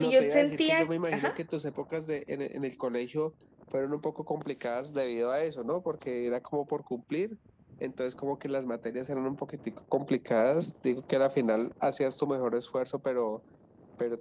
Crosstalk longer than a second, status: present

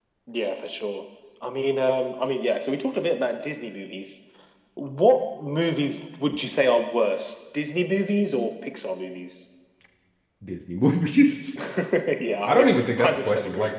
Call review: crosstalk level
present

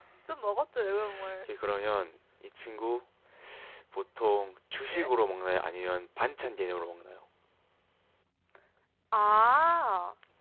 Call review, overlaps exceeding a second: none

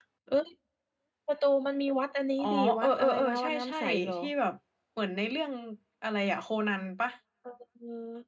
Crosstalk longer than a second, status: present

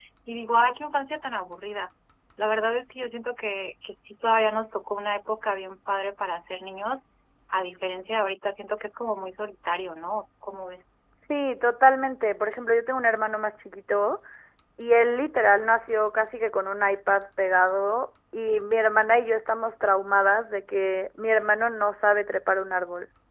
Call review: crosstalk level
none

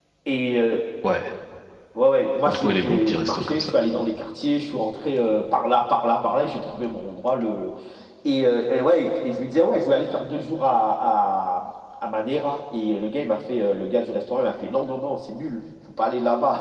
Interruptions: present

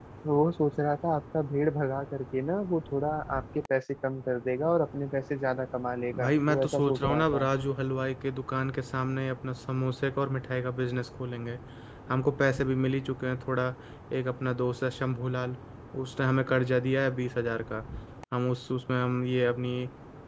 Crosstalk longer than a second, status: present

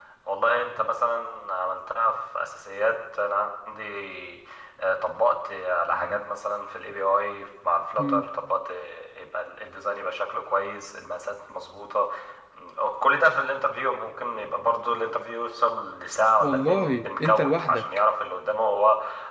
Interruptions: present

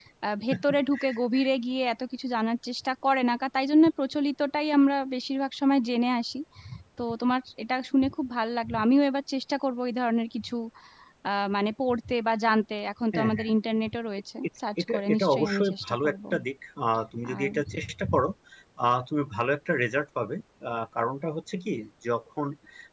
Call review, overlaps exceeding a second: present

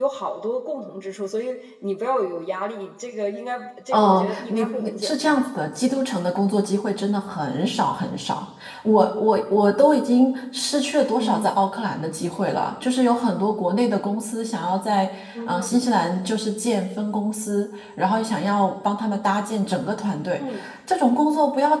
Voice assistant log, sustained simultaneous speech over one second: present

